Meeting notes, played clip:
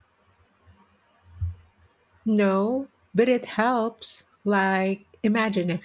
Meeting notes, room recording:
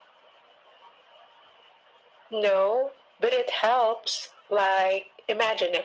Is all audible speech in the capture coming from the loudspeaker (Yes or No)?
Yes